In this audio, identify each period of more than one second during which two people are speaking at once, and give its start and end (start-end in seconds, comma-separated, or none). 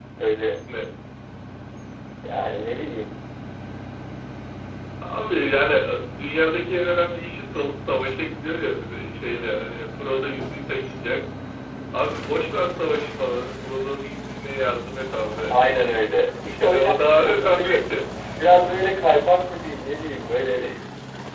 16.6-17.9